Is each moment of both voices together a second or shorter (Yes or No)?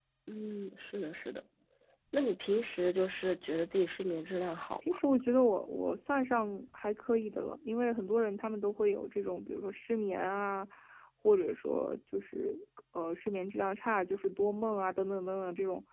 Yes